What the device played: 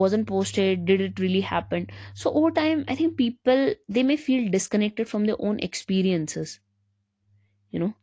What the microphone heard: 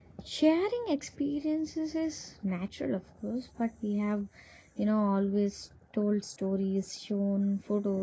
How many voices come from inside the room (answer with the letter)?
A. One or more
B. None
A